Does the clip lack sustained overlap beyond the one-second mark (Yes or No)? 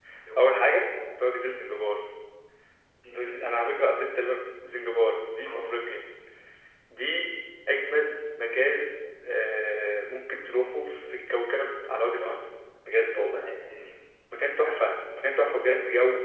Yes